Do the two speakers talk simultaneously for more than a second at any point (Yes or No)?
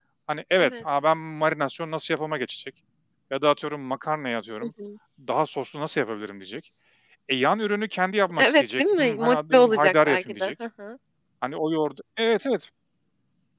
Yes